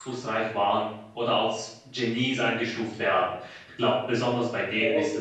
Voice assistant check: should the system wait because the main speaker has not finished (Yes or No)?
No